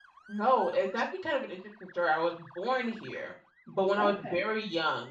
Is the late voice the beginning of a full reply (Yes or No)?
No